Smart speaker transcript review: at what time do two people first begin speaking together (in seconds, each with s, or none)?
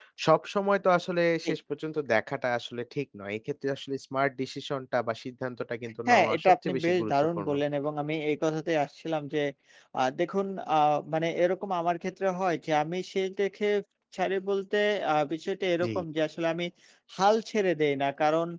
6.1 s